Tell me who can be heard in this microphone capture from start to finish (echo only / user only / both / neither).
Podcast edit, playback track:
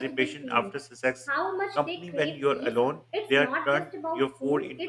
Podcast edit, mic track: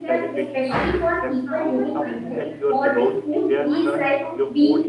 both